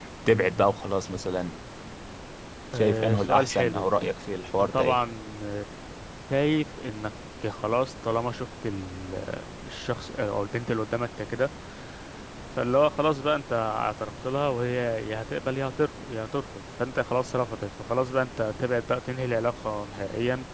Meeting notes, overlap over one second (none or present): present